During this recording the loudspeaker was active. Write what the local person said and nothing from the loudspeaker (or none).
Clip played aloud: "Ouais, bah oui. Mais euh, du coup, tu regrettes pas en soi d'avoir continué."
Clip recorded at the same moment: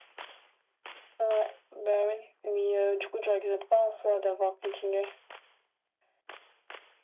none